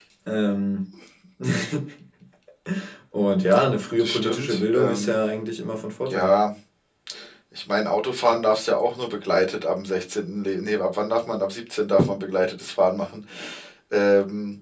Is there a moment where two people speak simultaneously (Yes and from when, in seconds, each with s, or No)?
Yes, from 4.0 s